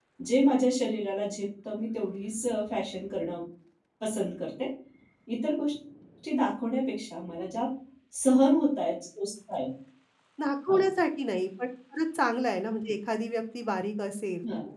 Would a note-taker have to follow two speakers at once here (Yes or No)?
No